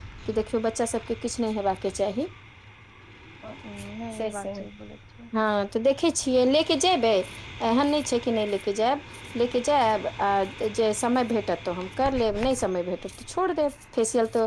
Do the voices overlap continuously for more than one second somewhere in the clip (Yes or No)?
No